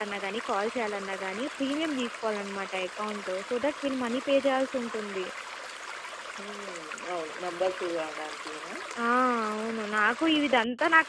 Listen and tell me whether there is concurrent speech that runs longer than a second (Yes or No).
No